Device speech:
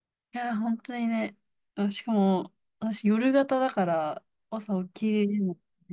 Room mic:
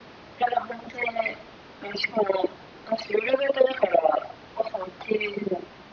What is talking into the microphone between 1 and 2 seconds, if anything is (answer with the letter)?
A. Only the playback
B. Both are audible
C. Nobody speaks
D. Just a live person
A